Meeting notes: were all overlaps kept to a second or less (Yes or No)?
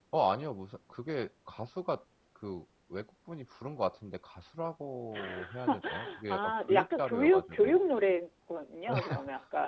No